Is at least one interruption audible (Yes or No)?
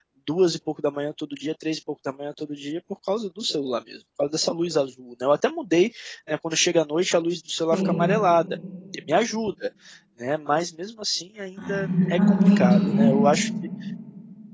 Yes